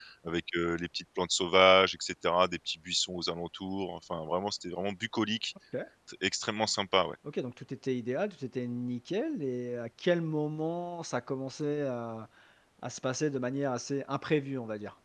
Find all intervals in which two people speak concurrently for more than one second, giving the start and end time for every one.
none

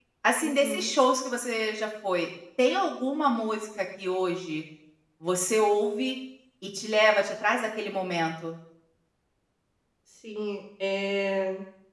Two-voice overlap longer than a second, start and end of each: none

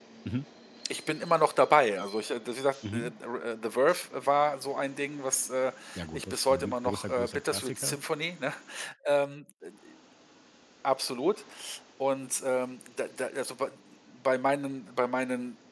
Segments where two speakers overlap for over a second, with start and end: 6.1-8.0

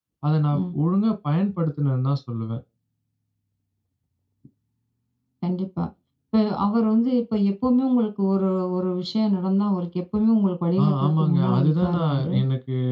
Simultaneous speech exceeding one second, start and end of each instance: 10.8-12.4

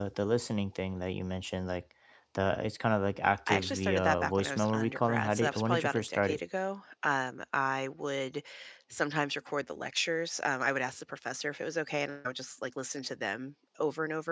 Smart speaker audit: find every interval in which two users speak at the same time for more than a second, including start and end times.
3.5-6.4

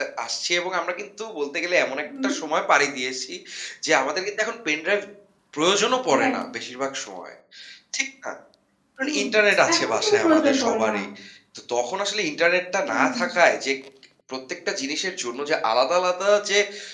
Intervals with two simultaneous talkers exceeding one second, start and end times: 9.7-10.9

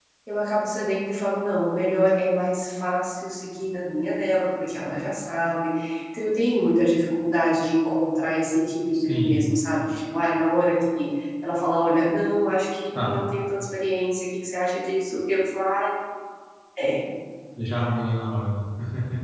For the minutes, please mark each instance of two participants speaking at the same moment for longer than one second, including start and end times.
none

